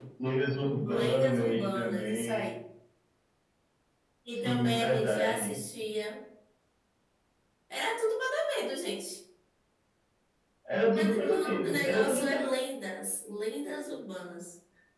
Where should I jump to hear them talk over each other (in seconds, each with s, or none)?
0.8 s